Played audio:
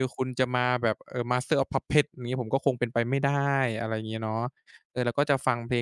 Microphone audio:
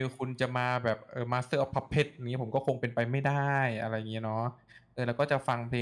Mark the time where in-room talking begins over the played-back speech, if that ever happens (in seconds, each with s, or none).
none